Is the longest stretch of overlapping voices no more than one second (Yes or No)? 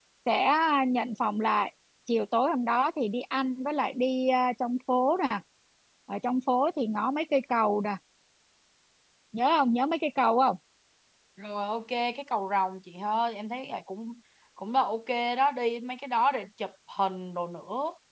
Yes